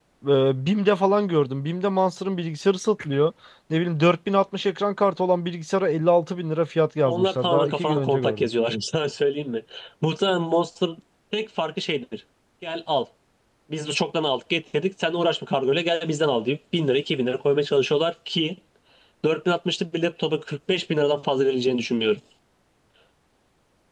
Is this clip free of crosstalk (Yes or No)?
No